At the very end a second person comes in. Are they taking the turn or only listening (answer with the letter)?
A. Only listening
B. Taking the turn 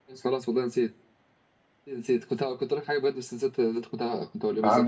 B